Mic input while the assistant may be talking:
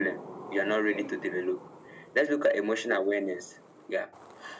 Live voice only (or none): Okay.